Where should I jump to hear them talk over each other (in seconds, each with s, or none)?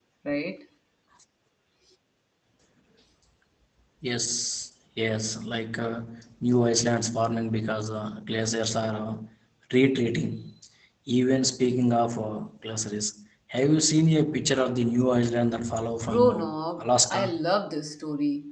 16.1 s